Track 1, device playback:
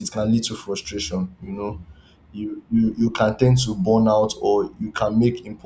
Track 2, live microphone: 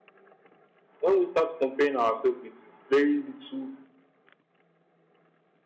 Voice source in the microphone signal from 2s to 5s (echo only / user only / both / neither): user only